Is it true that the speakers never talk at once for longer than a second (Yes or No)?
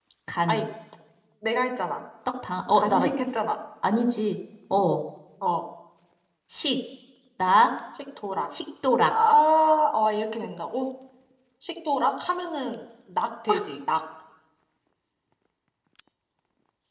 Yes